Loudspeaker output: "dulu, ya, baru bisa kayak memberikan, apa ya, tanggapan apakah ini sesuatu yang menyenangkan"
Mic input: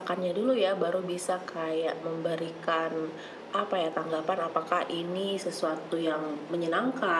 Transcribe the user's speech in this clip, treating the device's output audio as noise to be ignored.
none

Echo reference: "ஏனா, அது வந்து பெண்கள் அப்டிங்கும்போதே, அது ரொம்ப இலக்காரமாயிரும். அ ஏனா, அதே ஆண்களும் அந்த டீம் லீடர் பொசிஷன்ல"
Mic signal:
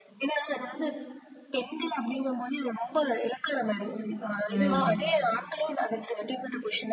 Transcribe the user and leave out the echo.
ம்.

